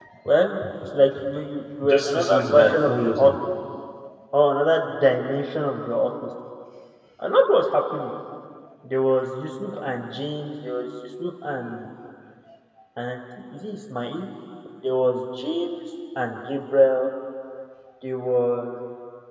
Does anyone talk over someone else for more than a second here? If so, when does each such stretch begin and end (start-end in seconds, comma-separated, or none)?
1.8-3.3